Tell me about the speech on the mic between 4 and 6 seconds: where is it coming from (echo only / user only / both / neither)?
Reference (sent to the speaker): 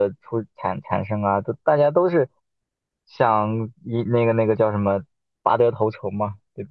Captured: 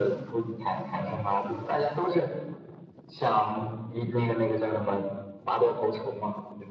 echo only